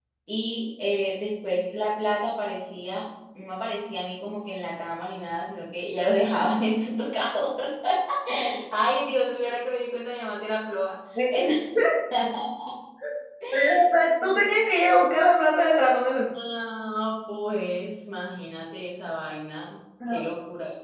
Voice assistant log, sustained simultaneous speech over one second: none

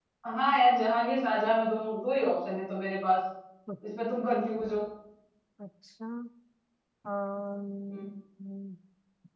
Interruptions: none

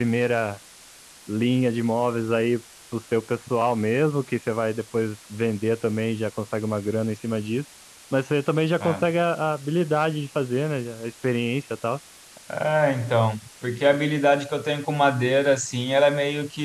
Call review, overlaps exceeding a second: none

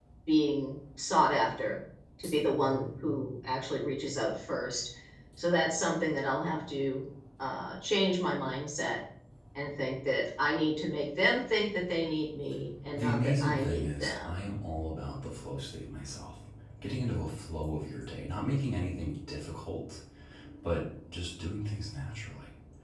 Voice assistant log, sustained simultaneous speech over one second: present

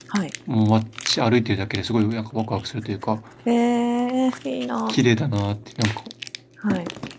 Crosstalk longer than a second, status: none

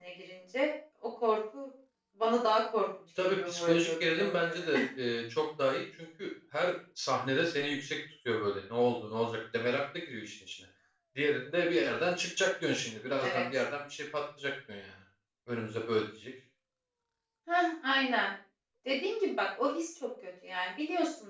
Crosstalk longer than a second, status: present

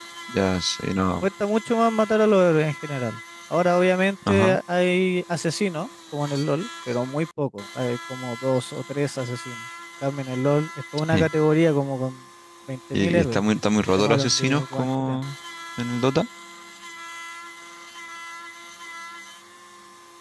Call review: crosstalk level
present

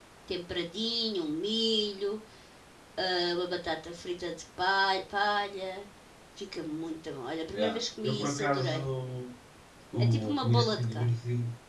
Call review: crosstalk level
present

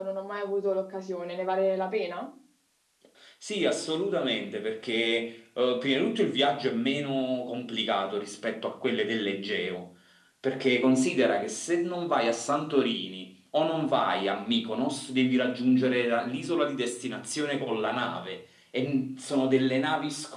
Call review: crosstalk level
none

